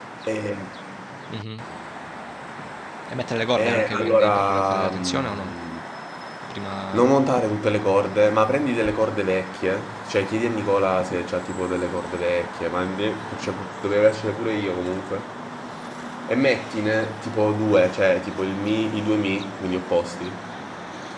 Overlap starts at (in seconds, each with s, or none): 3.6 s